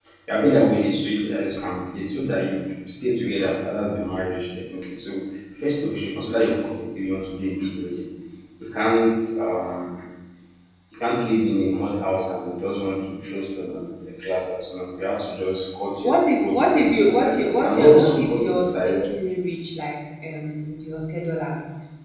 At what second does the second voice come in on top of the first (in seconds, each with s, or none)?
16.0 s